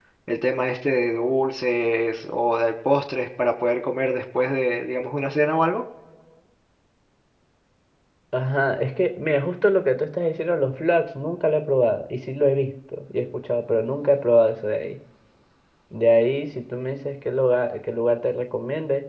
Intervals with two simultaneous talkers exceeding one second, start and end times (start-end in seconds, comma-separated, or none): none